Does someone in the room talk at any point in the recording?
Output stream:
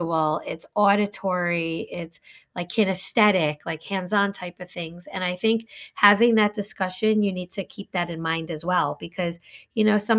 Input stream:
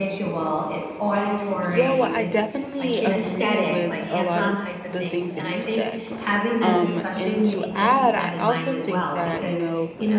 Yes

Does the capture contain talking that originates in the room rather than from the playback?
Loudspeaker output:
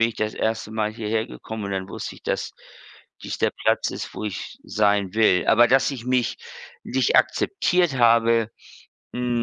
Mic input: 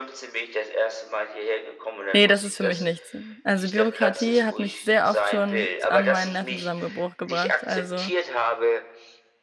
Yes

